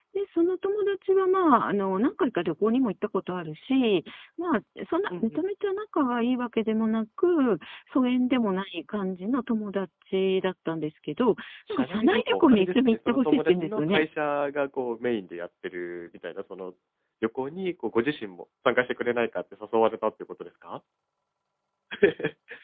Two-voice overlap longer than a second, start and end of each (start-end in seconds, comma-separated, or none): 11.7-14.0